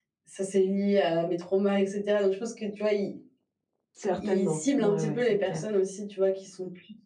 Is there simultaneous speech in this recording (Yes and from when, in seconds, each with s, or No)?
Yes, from 4.2 s